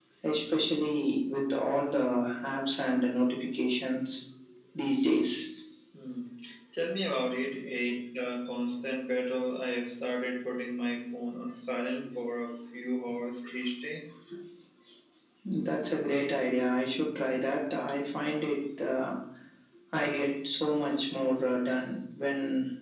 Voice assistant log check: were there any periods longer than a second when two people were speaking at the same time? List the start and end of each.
none

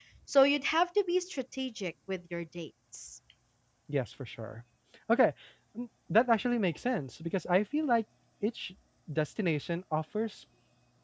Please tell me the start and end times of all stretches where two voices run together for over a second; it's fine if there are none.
none

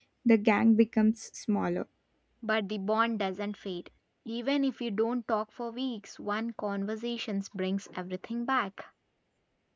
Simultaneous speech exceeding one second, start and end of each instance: none

